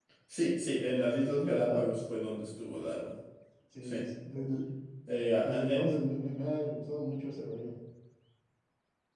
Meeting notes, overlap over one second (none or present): none